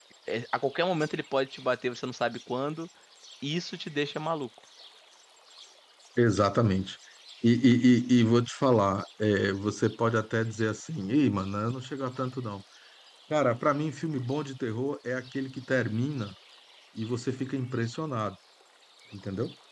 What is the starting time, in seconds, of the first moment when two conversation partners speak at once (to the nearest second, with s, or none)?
none